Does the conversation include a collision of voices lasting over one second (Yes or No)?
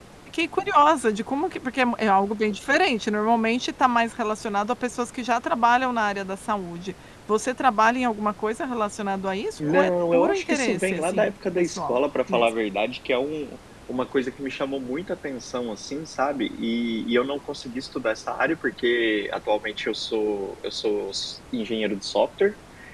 Yes